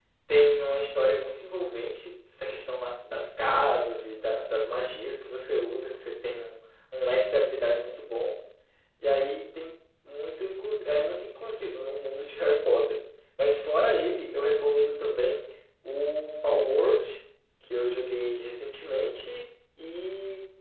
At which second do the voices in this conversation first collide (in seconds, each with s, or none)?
none